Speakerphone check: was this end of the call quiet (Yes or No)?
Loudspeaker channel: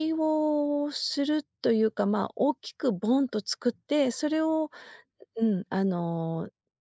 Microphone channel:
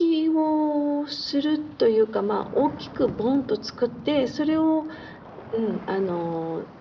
Yes